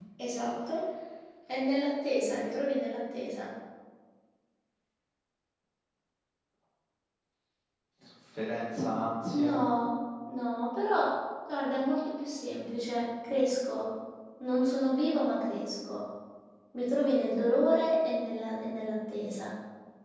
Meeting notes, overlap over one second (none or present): none